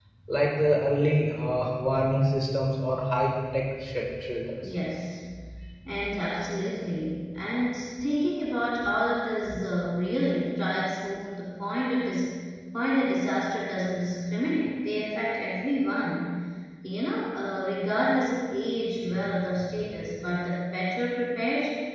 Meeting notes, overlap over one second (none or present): none